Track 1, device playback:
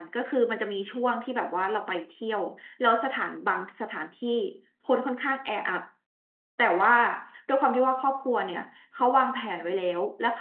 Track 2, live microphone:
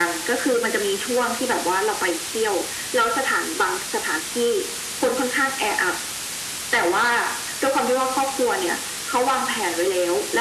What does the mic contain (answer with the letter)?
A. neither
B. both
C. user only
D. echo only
D